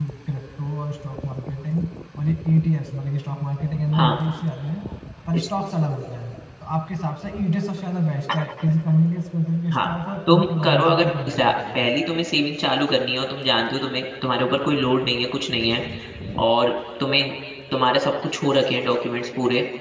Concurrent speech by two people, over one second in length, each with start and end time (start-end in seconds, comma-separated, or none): 10.3-11.8